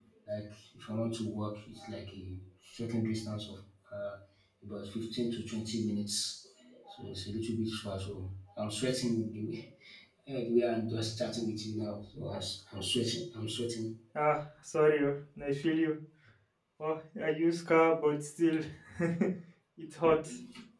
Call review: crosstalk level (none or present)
none